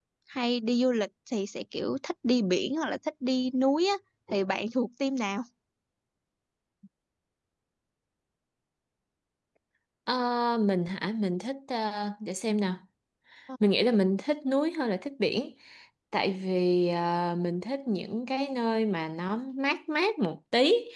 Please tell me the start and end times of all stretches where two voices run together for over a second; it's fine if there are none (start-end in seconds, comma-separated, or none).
none